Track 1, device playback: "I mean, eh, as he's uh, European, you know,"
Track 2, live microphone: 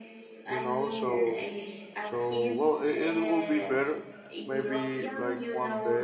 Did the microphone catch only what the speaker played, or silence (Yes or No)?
No